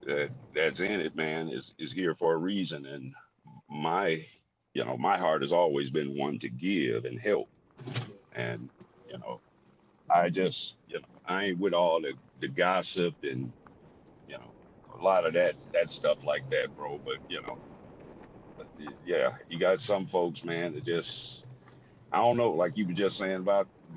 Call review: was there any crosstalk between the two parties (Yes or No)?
No